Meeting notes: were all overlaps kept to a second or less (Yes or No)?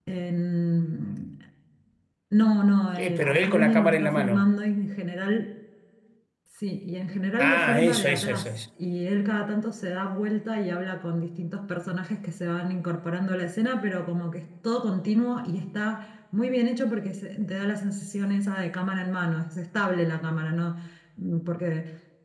No